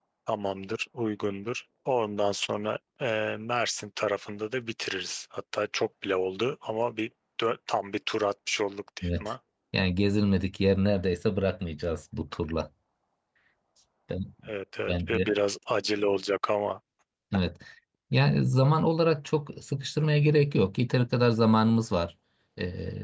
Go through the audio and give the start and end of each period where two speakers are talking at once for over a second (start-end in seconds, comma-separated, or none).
none